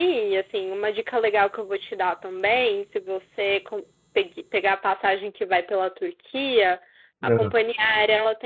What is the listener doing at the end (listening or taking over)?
listening